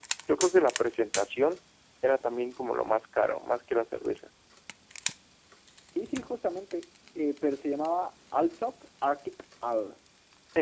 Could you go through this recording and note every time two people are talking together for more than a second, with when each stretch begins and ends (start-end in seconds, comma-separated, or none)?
none